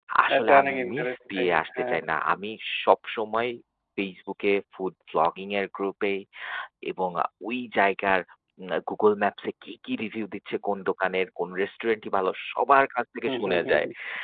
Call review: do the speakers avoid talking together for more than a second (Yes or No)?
No